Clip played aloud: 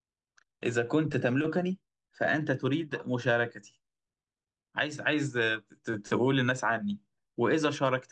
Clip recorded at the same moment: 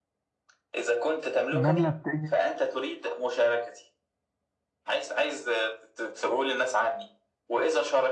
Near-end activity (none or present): present